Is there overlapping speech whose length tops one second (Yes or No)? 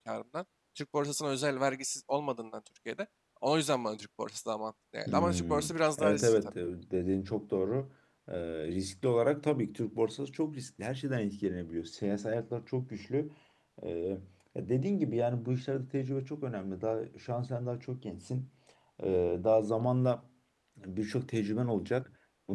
Yes